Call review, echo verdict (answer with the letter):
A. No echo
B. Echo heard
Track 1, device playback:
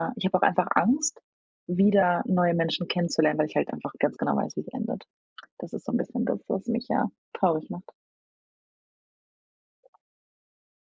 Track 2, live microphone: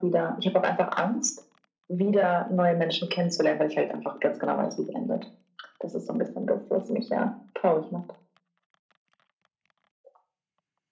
B